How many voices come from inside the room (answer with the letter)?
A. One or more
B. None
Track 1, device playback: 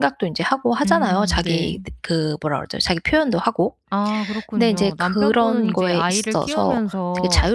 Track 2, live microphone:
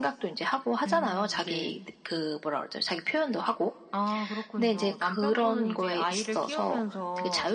B